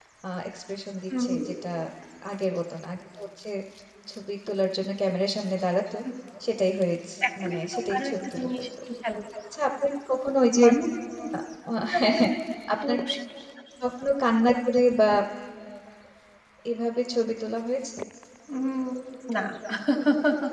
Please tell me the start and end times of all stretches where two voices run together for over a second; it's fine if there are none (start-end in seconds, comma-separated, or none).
7.4-8.7